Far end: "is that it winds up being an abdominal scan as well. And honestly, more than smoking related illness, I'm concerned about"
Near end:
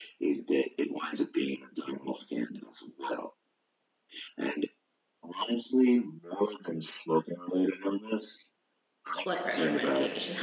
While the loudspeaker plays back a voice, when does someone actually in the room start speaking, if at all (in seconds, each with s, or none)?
9.2 s